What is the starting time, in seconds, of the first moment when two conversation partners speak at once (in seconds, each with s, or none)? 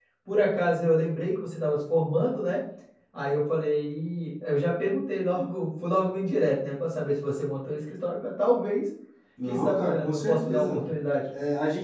9.5 s